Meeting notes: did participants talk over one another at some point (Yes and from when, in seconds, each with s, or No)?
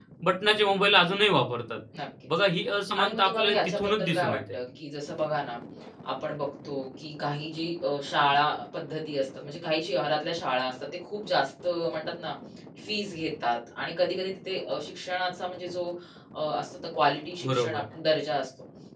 Yes, from 3.0 s